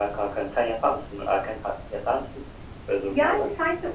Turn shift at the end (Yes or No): Yes